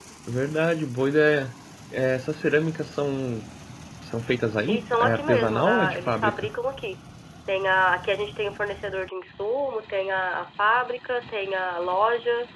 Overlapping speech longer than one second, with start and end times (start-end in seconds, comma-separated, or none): 4.7-6.5